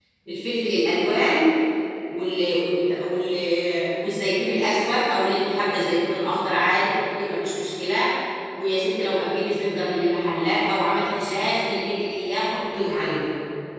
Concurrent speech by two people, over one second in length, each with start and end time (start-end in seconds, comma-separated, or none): none